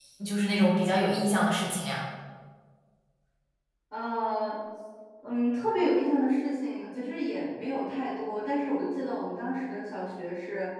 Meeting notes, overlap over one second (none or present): none